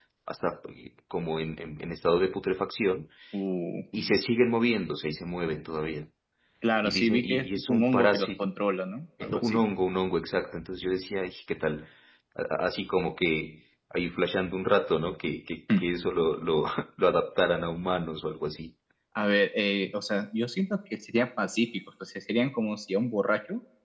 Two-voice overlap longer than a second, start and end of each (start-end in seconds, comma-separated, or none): 6.8-8.3